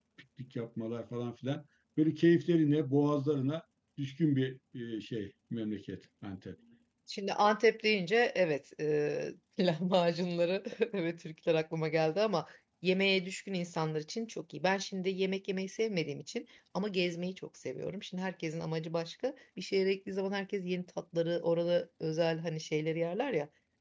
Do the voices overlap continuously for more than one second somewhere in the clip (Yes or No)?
No